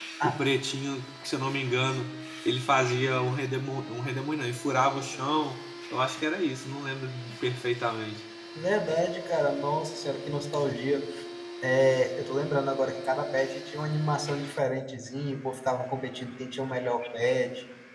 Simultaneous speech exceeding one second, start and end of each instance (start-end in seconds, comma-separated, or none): none